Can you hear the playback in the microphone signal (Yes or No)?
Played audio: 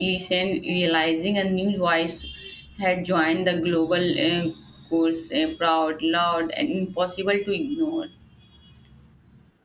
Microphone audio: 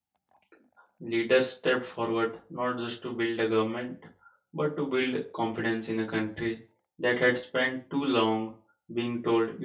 No